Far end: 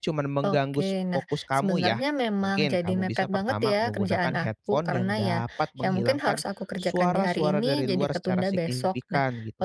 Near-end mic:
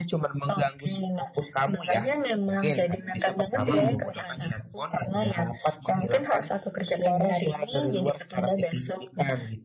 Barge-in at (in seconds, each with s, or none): 3.6 s